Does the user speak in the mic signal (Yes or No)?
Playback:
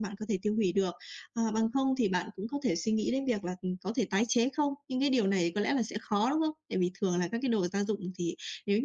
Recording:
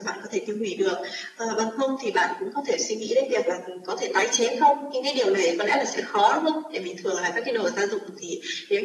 No